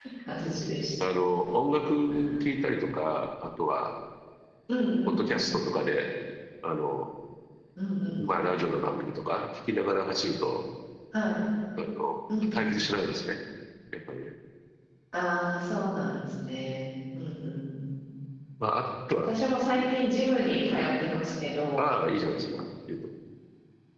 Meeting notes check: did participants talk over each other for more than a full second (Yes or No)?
No